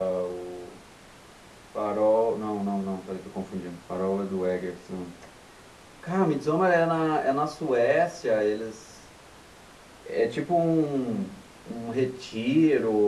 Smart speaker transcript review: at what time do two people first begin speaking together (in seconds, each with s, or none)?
none